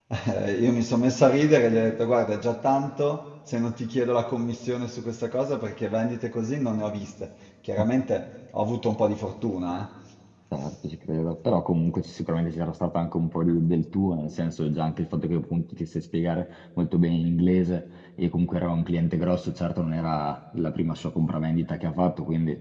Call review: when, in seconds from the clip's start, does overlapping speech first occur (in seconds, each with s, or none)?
none